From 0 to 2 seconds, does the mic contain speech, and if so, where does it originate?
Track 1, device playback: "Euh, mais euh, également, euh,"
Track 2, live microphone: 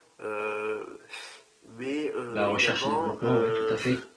echo only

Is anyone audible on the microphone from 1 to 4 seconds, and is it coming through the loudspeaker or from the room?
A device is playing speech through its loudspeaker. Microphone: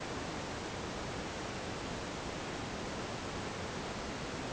neither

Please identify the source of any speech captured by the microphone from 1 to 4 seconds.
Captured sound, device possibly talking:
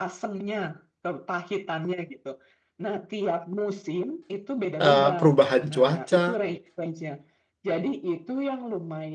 echo only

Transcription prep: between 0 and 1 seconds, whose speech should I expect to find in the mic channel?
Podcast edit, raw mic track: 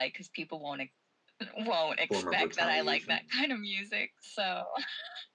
echo only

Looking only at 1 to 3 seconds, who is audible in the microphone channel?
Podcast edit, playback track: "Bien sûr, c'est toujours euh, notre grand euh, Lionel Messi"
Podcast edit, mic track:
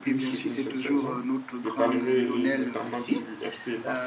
both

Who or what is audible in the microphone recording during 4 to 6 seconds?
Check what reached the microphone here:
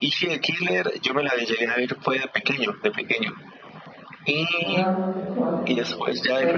both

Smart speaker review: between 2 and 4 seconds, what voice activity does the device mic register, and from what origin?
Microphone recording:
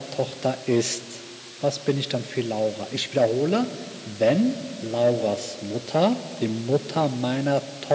echo only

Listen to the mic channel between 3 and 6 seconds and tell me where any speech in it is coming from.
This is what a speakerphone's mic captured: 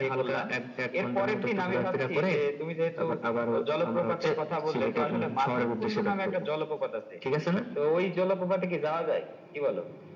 echo only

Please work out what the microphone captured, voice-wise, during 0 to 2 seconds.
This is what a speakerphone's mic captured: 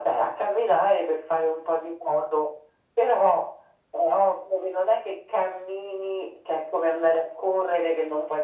echo only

